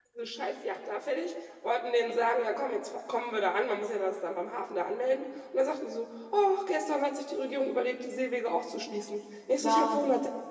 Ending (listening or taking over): listening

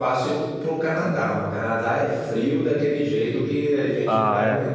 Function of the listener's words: taking over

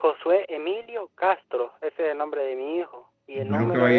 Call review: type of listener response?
taking over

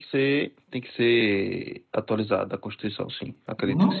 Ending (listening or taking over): taking over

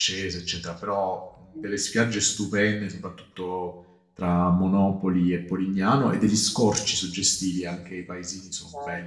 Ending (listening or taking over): taking over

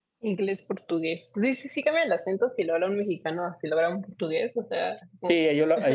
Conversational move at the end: taking over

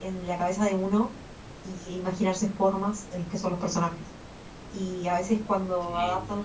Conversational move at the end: listening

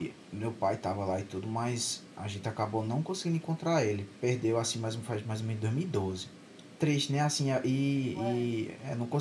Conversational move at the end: listening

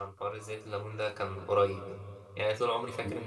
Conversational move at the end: listening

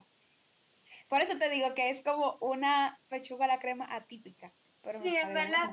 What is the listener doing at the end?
taking over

